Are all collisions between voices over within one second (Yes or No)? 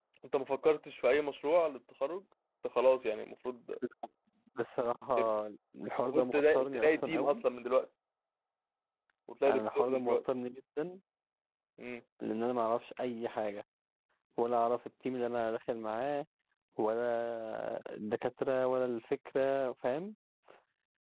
No